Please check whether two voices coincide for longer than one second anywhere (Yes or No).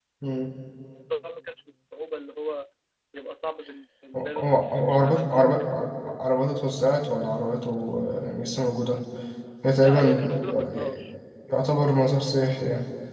Yes